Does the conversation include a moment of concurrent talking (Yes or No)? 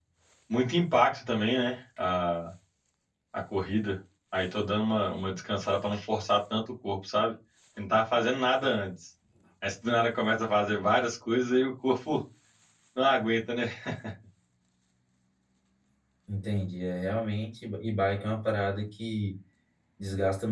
No